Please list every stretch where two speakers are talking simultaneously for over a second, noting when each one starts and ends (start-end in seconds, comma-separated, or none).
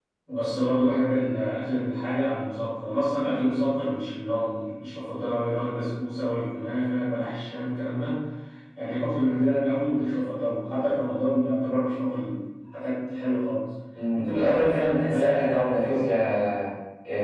14.1-15.9